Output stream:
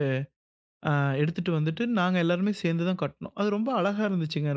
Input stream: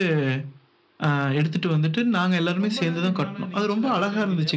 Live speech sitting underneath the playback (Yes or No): Yes